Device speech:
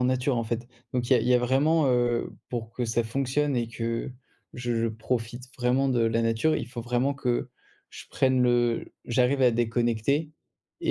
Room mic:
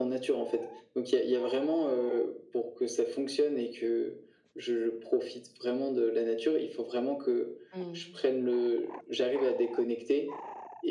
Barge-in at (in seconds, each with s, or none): 7.7 s